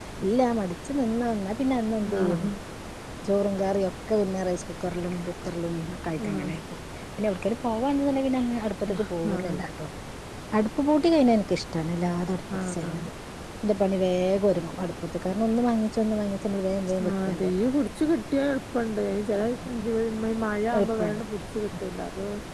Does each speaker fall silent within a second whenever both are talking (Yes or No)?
Yes